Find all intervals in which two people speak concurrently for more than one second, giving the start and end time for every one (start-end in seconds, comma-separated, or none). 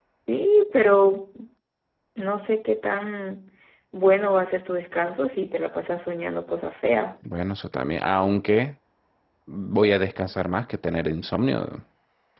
none